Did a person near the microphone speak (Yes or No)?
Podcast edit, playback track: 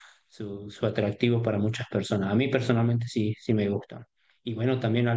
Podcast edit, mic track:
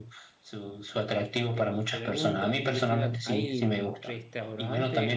Yes